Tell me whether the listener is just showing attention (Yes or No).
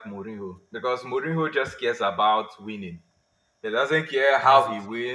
Yes